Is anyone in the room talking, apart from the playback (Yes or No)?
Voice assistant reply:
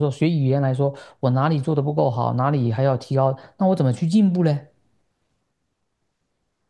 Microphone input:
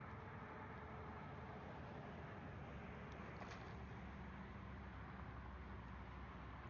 No